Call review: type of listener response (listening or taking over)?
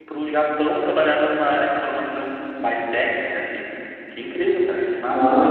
taking over